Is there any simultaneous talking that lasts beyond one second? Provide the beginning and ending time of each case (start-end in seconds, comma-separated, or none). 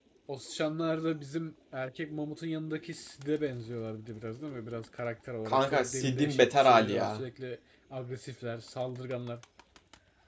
5.5-7.2